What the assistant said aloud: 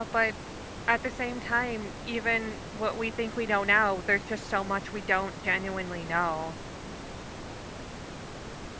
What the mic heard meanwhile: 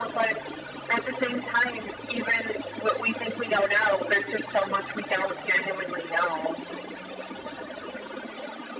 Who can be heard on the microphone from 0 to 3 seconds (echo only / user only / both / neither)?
echo only